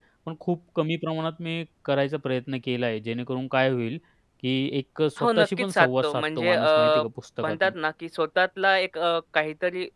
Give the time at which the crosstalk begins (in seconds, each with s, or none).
5.2 s